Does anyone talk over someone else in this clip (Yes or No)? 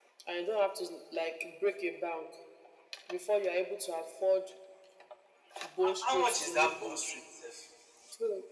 Yes